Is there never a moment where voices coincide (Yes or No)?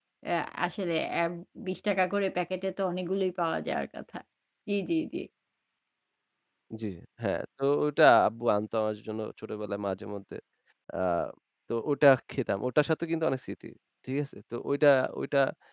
Yes